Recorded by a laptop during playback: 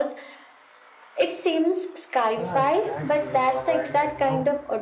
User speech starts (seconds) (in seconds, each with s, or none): 2.4 s